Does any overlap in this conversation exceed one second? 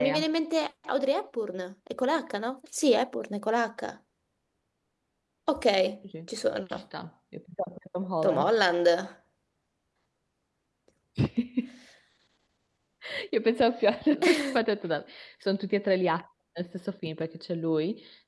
No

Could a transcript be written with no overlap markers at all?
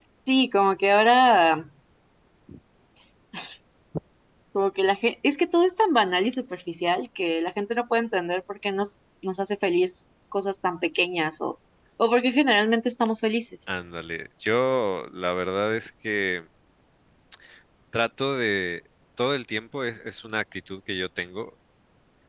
Yes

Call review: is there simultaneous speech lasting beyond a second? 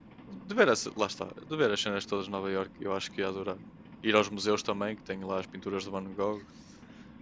No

